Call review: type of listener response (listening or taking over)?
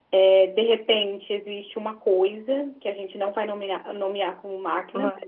listening